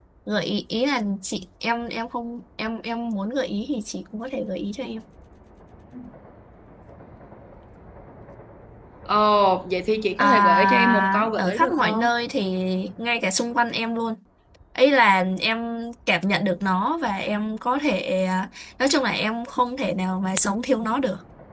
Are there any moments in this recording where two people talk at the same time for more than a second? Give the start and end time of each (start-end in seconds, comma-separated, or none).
10.2-12.0